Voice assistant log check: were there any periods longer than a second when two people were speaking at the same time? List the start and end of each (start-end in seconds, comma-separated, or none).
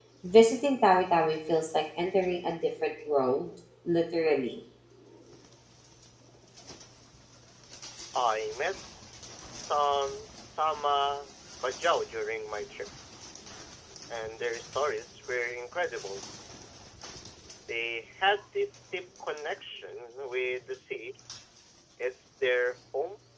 none